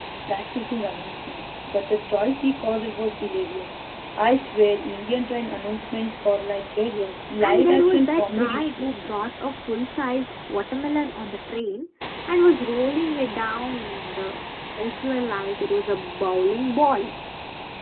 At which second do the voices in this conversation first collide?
7.4 s

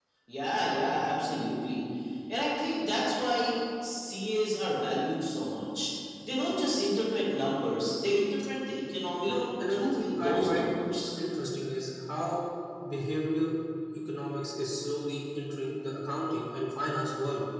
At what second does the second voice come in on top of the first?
9.2 s

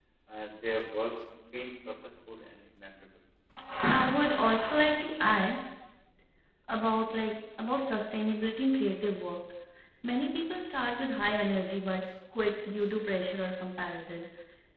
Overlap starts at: none

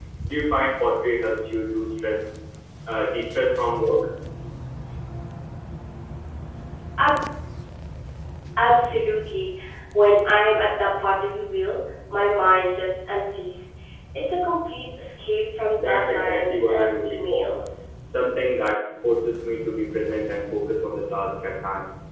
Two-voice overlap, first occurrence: 15.8 s

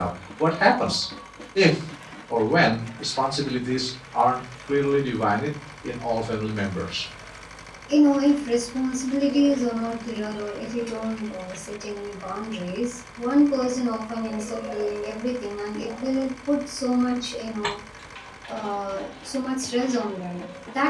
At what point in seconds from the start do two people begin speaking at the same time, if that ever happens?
none

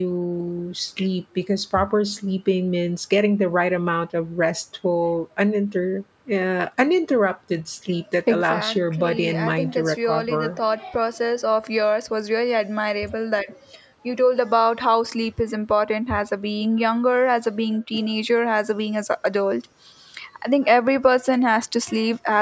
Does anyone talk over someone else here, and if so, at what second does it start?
8.3 s

